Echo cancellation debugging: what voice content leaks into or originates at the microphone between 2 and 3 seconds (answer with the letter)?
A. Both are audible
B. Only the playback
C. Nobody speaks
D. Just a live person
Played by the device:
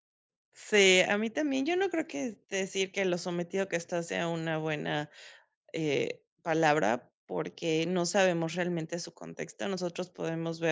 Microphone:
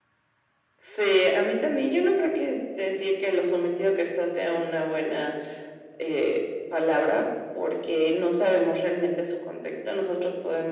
B